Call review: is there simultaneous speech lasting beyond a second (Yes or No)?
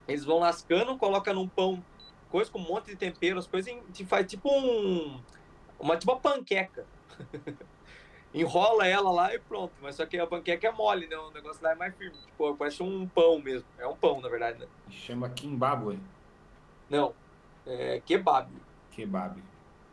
No